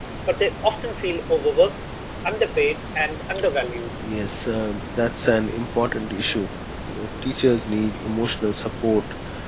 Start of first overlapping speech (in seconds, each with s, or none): none